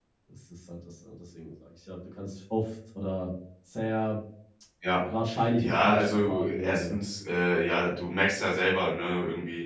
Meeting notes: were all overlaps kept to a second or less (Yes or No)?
No